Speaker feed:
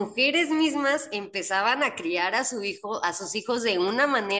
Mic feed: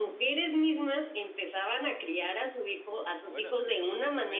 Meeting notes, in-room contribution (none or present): present